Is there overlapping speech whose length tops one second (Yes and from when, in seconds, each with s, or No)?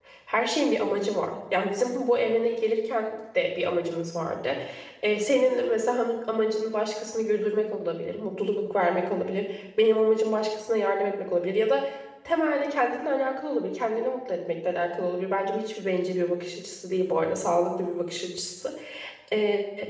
No